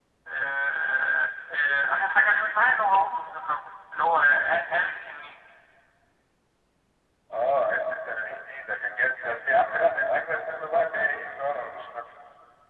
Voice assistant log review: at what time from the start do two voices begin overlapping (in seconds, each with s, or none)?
none